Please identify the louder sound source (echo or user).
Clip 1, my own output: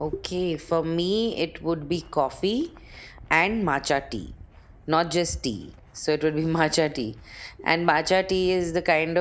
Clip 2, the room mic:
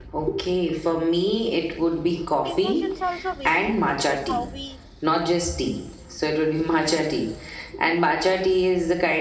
echo